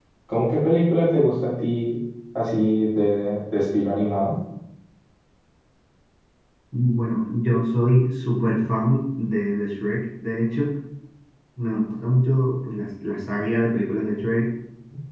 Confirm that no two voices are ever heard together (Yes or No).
Yes